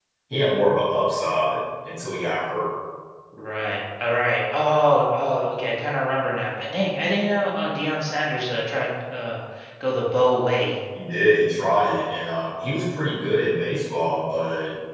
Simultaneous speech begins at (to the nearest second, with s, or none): none